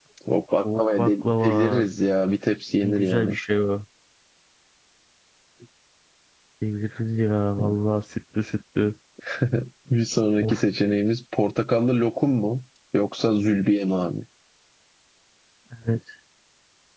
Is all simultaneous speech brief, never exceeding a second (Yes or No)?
No